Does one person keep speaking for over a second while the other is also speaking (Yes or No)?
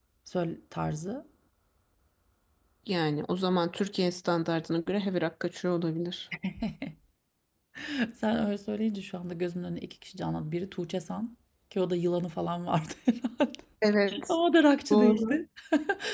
No